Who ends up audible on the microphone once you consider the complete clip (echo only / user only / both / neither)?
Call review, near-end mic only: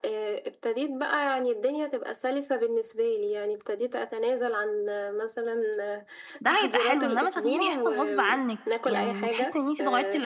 both